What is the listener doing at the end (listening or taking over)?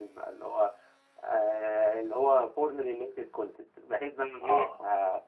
listening